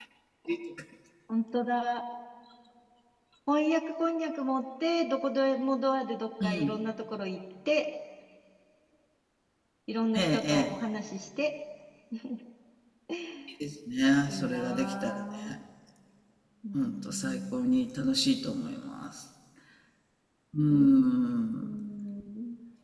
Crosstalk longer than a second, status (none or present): present